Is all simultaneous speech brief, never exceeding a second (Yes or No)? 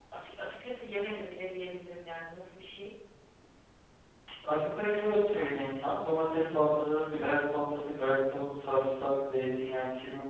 Yes